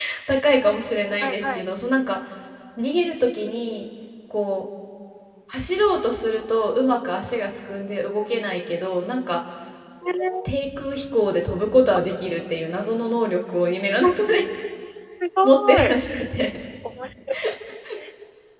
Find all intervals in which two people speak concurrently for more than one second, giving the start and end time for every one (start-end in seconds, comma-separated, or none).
none